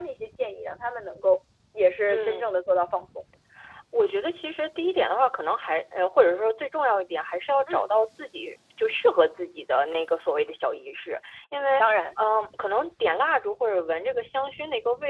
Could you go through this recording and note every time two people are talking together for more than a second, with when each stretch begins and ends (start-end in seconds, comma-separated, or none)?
none